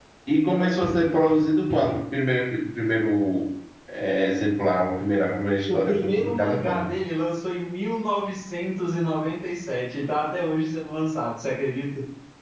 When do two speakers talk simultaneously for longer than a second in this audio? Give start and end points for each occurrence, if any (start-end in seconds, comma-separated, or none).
5.4-6.9